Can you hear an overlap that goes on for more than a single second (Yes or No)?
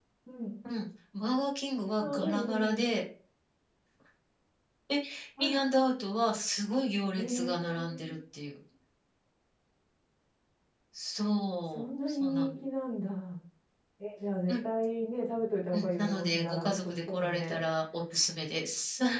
Yes